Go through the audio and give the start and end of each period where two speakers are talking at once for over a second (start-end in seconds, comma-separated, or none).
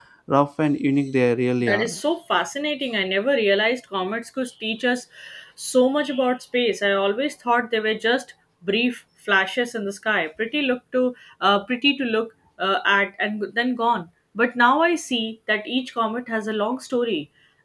none